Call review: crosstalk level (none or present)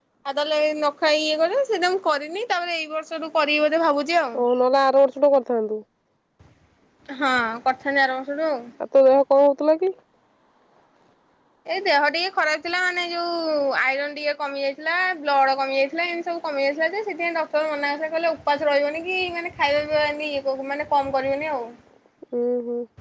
none